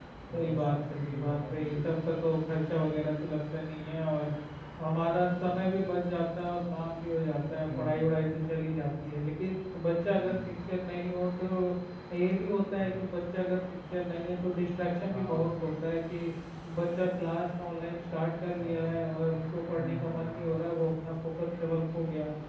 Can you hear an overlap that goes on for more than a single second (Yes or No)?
Yes